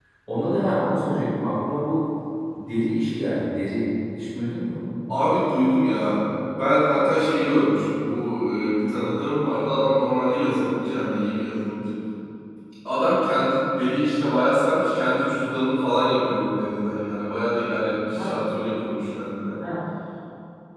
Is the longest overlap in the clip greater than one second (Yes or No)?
No